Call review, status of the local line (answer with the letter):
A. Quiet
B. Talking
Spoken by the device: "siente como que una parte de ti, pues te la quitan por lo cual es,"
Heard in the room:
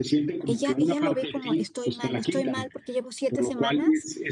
B